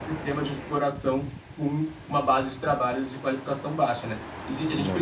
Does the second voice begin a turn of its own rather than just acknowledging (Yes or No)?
No